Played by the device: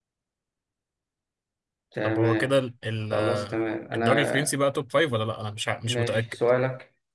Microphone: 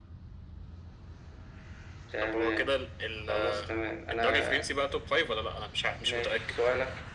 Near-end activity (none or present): none